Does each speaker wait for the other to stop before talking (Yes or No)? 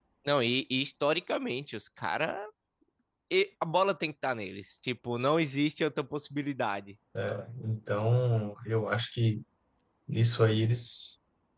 Yes